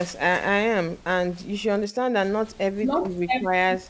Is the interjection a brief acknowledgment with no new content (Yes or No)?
Yes